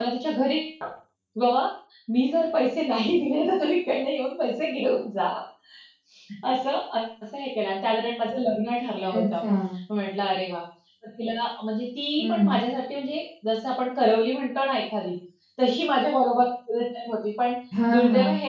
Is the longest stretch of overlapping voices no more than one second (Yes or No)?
Yes